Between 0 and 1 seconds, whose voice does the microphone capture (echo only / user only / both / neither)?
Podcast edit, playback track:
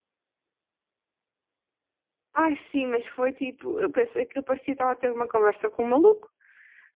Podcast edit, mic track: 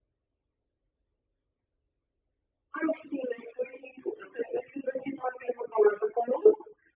neither